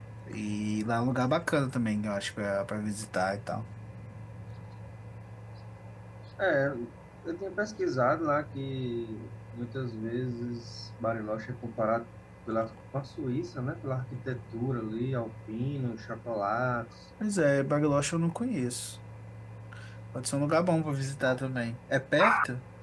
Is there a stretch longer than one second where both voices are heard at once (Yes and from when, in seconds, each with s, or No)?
No